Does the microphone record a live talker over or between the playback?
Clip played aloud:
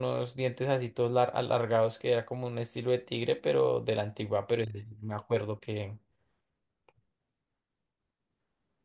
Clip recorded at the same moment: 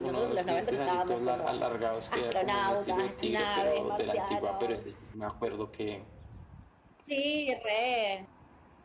Yes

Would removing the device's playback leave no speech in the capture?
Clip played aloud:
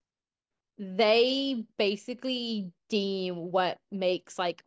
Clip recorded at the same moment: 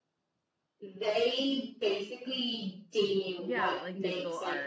No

